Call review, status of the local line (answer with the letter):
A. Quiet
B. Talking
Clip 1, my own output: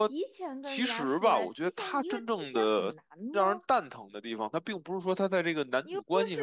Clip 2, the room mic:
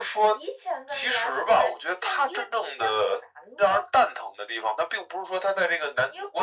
A